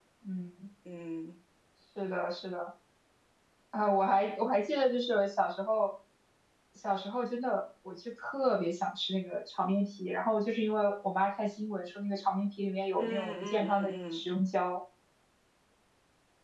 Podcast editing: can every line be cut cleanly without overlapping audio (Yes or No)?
No